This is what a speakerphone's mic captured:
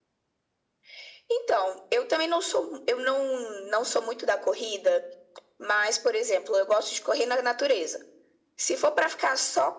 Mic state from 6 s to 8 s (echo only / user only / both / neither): echo only